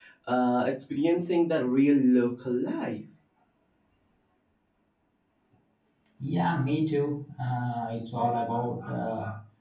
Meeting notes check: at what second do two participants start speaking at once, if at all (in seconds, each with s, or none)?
none